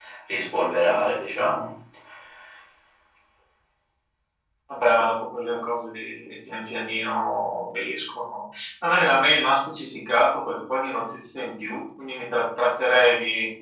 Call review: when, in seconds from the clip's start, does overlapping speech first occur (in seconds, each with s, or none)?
none